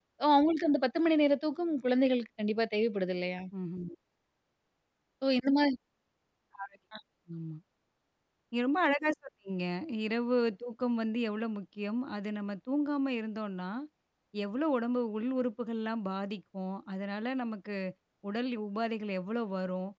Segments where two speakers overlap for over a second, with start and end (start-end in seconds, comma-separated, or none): none